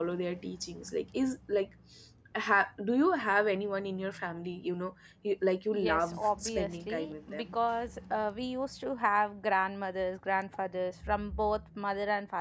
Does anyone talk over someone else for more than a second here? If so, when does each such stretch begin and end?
5.7-7.6

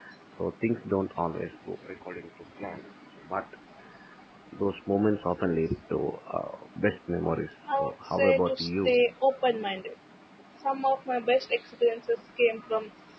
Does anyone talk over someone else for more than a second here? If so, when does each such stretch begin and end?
7.7-8.9

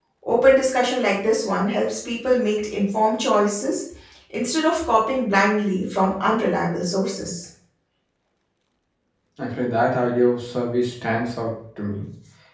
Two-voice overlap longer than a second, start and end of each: none

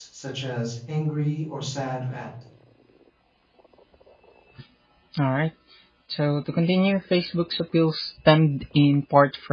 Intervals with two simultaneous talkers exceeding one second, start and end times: none

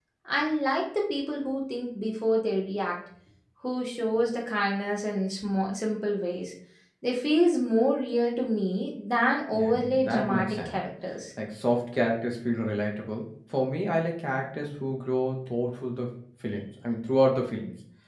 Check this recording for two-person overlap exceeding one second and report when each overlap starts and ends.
9.5-10.8

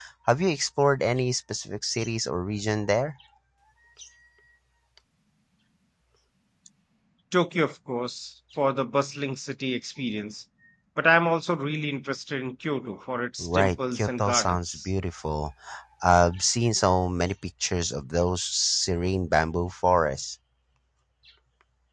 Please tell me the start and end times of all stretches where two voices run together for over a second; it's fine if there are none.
13.4-14.9

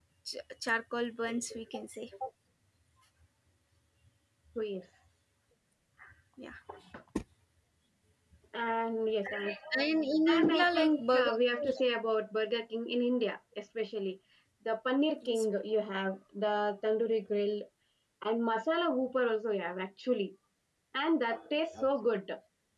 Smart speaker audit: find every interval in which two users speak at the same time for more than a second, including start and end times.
10.3-11.7

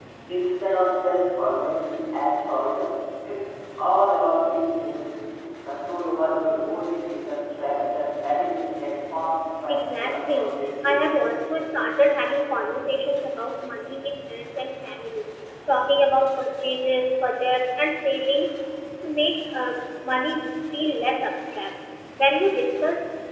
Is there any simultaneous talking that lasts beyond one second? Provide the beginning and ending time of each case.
9.7-11.0

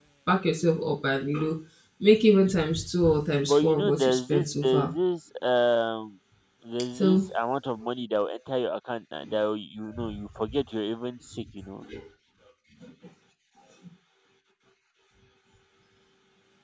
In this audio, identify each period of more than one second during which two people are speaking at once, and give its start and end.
3.4-4.9

